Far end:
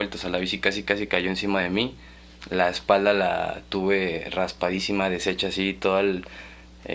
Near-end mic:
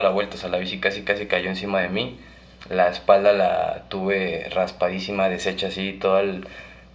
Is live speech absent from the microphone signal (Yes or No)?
Yes